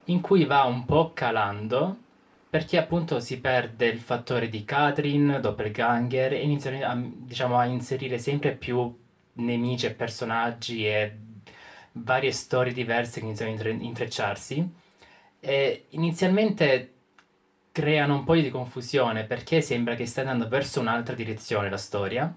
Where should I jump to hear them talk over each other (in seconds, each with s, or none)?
none